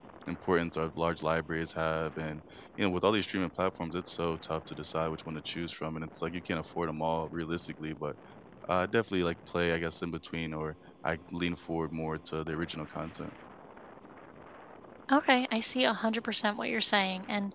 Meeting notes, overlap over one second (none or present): none